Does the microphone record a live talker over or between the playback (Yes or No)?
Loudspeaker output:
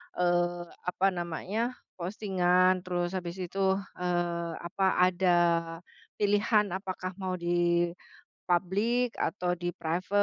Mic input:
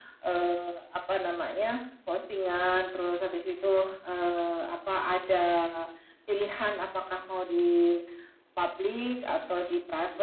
No